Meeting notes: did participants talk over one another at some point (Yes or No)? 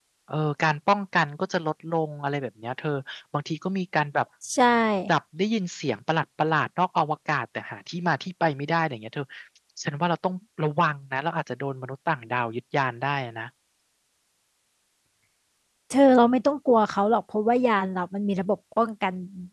No